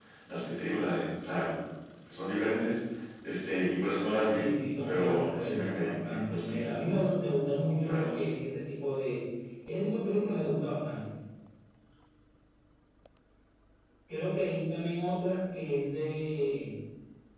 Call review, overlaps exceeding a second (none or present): present